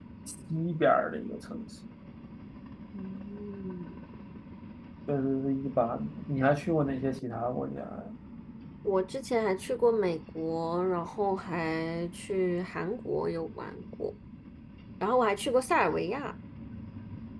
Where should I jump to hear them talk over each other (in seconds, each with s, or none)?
none